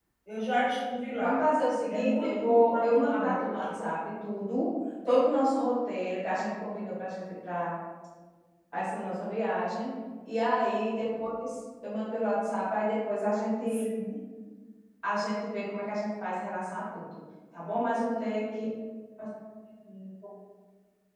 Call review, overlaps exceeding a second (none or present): present